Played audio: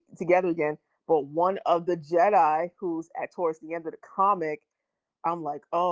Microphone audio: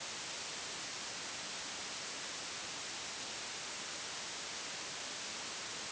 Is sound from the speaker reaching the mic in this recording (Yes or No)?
No